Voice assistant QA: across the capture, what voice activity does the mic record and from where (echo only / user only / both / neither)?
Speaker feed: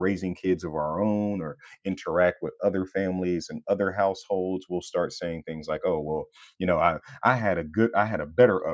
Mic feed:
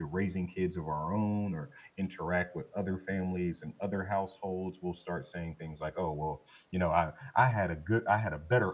echo only